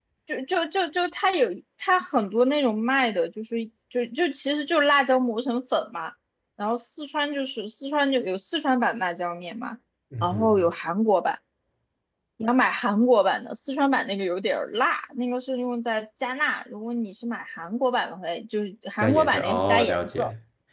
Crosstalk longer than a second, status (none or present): present